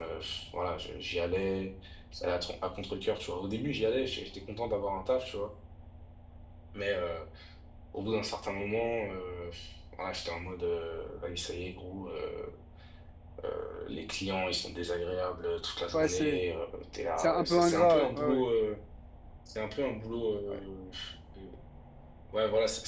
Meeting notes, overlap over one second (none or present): present